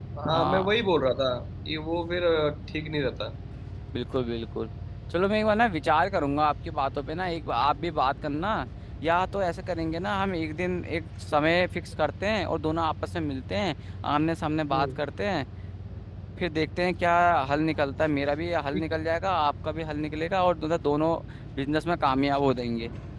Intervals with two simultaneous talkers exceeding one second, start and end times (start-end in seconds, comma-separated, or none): none